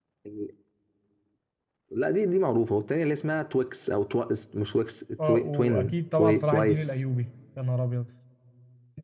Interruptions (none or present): present